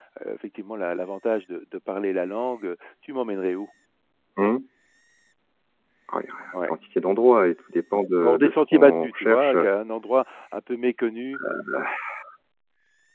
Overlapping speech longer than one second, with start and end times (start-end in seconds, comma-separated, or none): 8.2-9.7